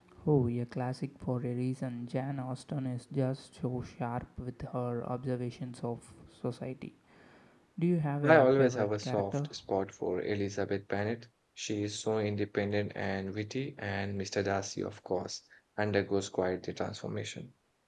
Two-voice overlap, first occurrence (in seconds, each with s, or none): 8.2 s